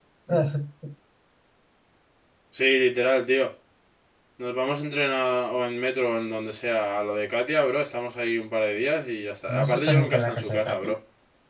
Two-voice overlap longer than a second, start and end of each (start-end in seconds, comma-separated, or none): 9.5-10.9